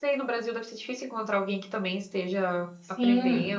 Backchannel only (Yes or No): No